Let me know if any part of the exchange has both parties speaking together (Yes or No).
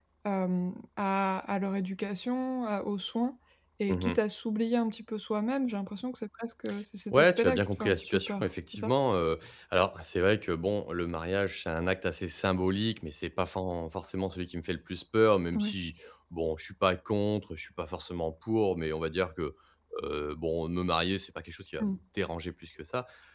Yes